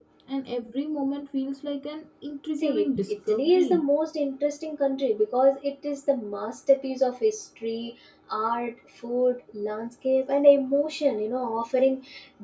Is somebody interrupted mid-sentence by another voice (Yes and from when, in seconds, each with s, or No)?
Yes, from 2.6 s